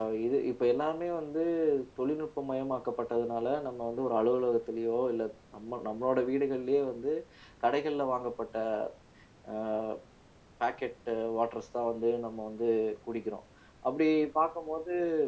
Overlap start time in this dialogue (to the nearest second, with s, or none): none